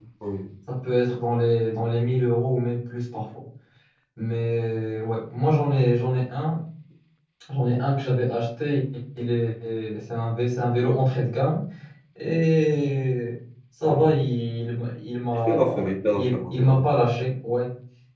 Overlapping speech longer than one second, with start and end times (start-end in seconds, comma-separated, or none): 15.5-16.8